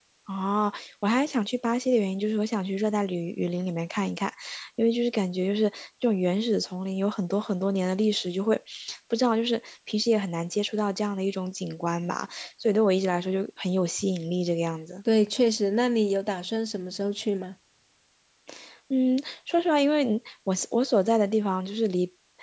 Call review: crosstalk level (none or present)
none